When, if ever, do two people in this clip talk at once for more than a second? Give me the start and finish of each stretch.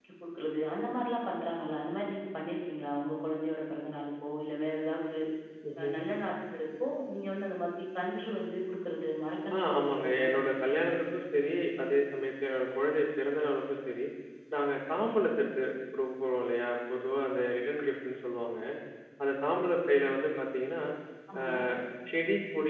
9.5-10.9

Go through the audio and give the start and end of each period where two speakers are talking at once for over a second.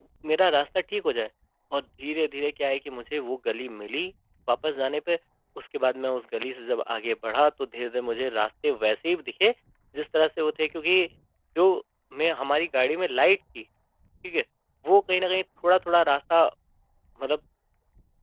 none

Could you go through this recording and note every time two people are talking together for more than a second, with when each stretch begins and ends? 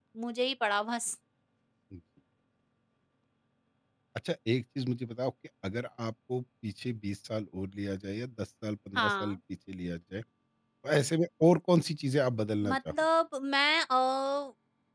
none

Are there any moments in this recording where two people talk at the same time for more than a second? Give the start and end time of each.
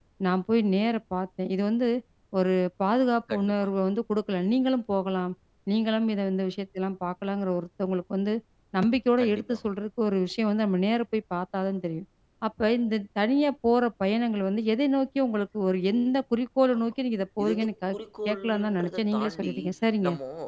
18.3-19.5

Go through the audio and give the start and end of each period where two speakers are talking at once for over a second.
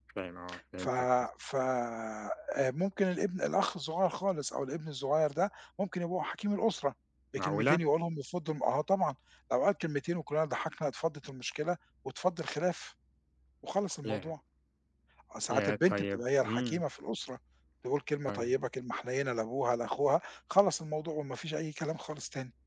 15.5-16.8

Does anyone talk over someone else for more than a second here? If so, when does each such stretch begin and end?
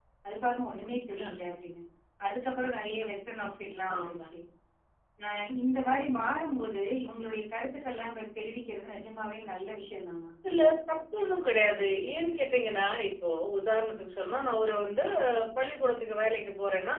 none

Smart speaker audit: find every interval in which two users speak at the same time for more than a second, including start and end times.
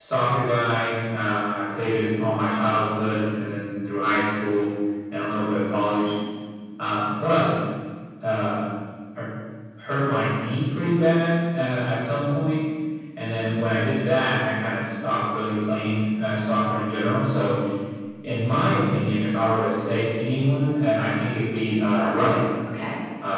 none

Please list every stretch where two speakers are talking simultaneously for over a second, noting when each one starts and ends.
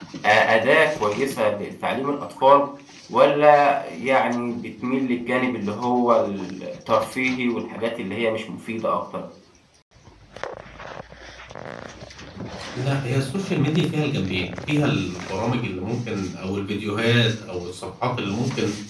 none

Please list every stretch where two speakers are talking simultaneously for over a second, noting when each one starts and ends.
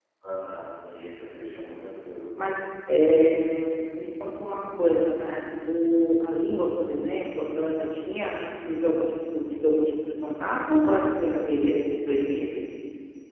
none

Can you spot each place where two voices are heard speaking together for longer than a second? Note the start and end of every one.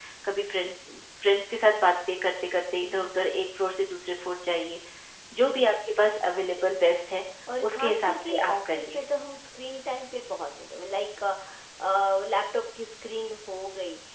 7.6-9.0

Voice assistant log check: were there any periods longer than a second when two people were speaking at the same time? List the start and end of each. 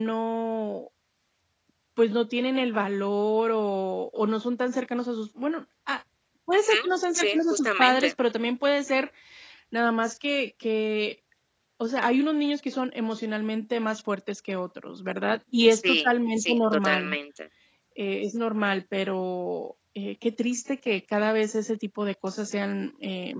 6.6-8.1, 15.7-17.2

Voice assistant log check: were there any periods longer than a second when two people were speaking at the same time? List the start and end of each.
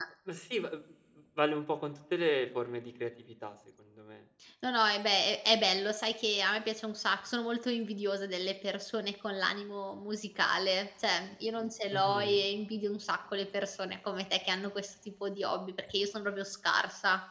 none

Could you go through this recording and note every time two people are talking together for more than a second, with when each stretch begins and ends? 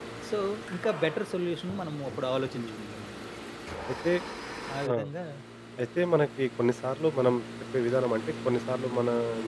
none

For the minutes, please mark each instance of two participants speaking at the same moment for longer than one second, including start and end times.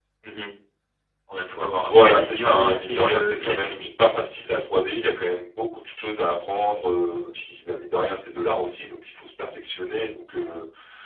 1.8-3.9

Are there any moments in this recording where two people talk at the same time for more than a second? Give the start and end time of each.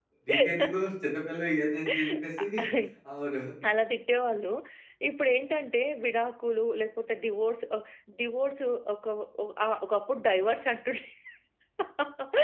none

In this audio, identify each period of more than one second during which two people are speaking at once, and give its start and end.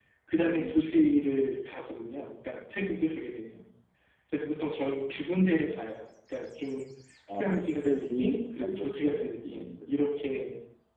7.4-9.9

